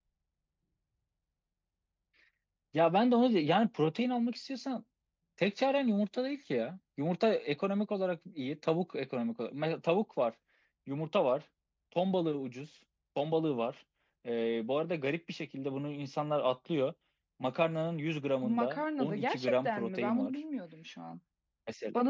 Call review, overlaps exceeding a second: present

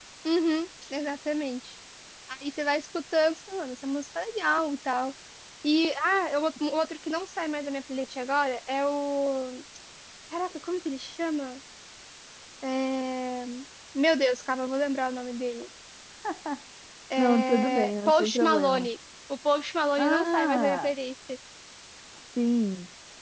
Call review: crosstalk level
present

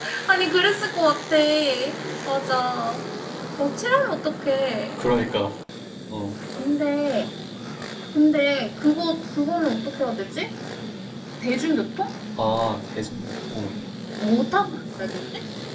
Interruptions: none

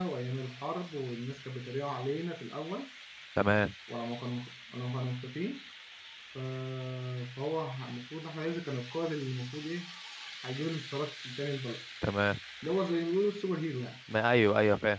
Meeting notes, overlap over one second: none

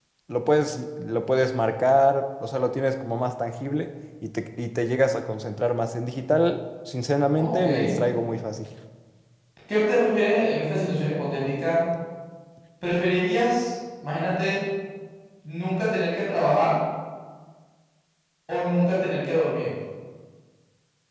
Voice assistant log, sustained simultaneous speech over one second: none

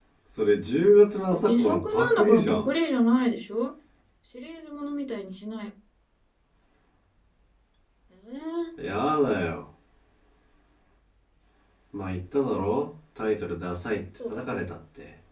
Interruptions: present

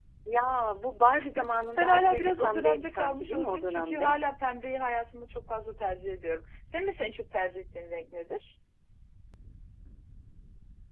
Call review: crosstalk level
present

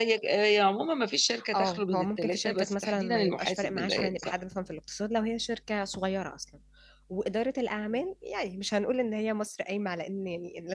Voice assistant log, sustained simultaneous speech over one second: present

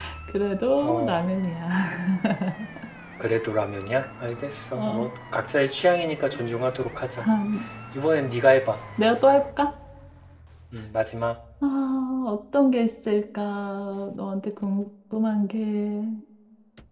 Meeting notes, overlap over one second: none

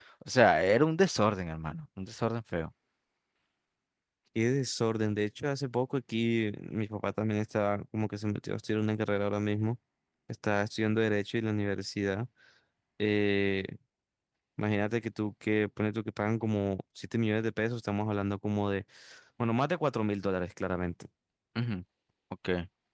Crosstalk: none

